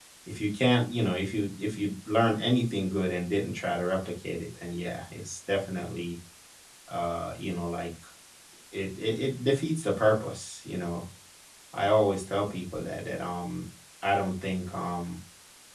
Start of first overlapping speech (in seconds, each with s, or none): none